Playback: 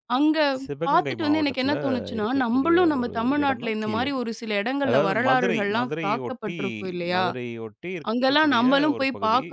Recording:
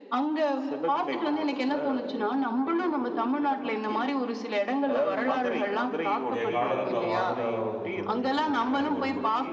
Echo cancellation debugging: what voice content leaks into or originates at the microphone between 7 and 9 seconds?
both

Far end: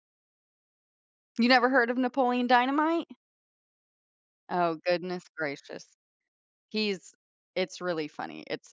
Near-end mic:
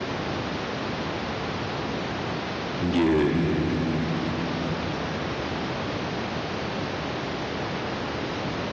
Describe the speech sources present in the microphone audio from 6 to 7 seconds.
neither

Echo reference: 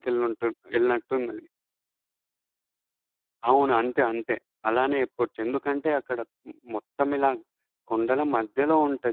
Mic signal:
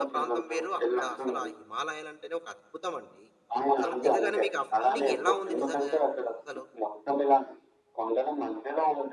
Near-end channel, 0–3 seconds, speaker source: both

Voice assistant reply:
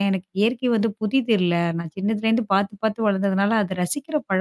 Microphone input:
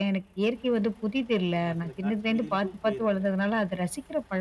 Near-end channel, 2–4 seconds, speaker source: both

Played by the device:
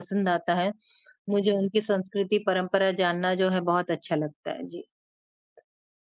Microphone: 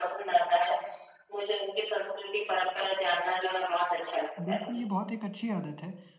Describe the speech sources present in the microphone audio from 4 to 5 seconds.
both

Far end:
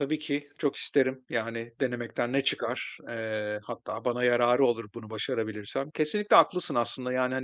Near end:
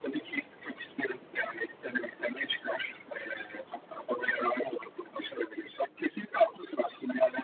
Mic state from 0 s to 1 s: echo only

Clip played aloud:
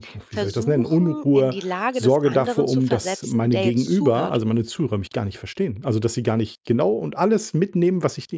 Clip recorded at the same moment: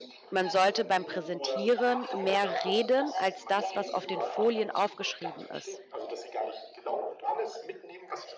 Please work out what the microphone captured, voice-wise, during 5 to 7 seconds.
both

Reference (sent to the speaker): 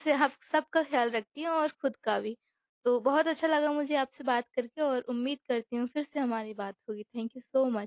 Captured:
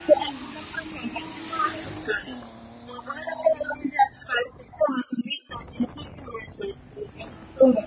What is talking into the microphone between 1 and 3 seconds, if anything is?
echo only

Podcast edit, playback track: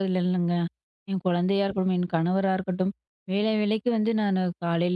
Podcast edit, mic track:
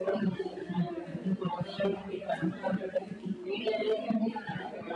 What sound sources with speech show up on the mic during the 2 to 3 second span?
both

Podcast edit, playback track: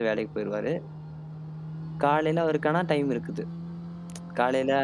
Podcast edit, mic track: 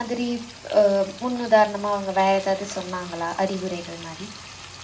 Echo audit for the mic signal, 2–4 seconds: user only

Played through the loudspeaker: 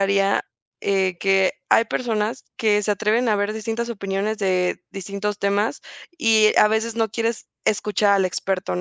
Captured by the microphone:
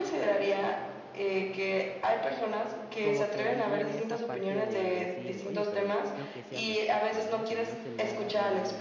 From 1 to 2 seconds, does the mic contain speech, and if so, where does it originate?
echo only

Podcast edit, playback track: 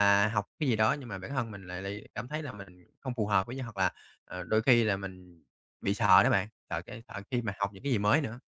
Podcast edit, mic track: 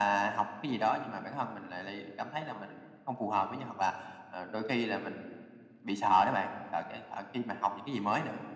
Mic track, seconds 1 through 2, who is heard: echo only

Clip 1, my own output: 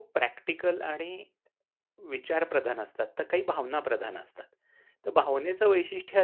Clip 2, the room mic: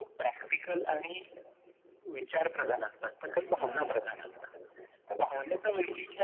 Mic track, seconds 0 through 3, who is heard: echo only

